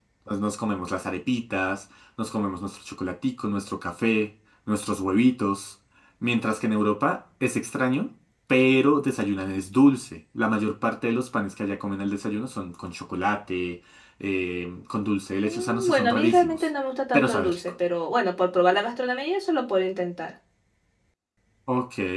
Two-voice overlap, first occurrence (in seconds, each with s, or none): 15.4 s